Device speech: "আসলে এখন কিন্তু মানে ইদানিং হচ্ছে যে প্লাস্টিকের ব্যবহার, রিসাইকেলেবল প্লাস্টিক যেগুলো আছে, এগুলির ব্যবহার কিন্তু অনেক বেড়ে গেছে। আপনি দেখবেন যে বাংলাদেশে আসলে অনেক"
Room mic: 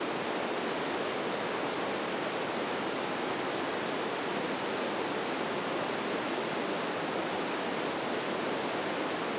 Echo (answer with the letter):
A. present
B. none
B